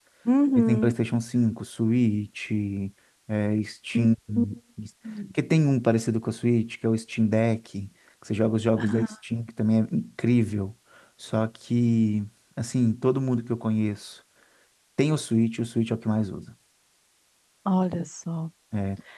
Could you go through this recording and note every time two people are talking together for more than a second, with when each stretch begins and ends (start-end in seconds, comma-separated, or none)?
none